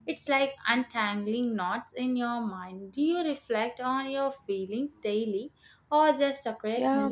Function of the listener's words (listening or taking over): taking over